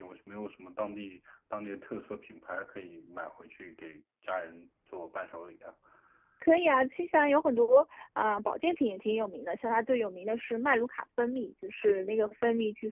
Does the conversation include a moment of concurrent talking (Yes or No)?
No